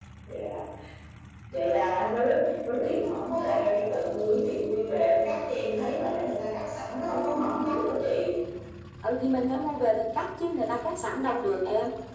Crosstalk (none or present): none